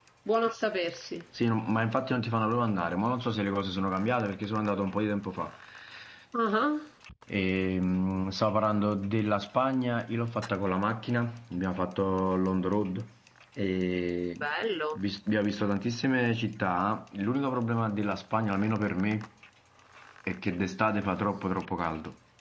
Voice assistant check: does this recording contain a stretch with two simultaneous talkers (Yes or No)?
No